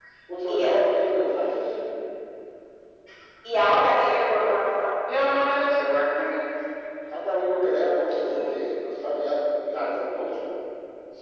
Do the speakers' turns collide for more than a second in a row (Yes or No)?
No